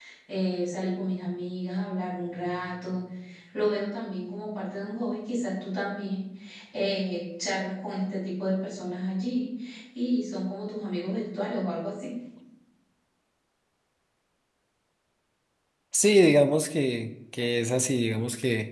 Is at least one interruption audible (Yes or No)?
No